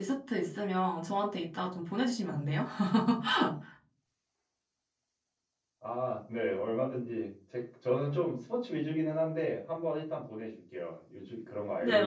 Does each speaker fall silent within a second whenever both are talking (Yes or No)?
Yes